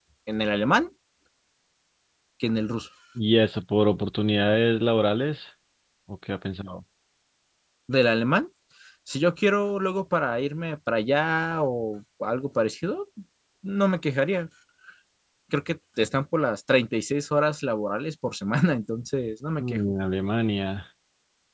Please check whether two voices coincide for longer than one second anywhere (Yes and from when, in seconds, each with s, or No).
No